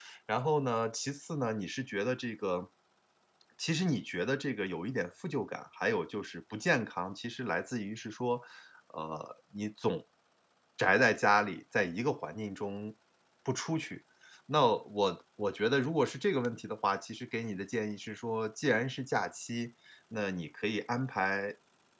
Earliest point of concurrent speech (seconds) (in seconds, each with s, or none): none